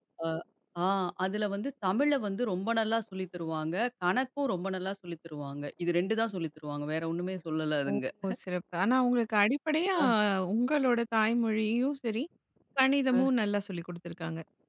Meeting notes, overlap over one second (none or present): none